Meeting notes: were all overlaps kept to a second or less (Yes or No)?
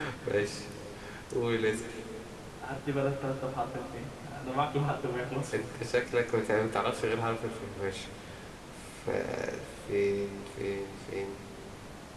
Yes